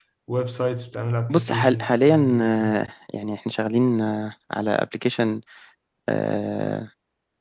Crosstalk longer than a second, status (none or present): present